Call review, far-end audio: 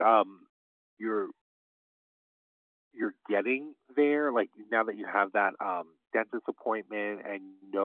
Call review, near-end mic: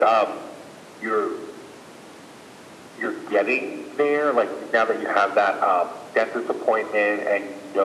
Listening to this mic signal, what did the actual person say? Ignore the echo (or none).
none